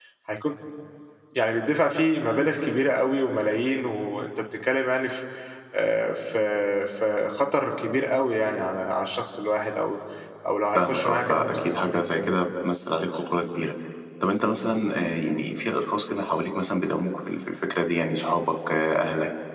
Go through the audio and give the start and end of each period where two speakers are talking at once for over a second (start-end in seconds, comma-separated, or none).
10.8-12.4